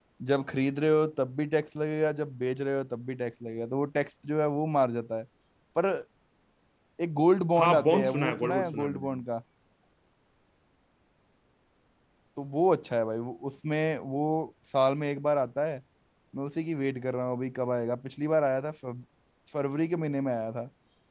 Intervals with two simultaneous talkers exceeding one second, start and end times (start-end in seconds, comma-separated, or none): 7.6-9.2